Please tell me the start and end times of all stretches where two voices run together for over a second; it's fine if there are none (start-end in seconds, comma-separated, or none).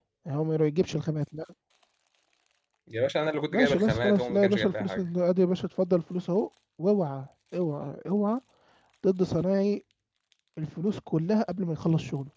3.5-5.1